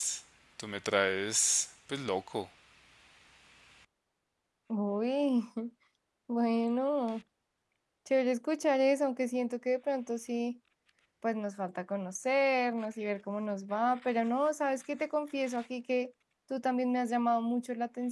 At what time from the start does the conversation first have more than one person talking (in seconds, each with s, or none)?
none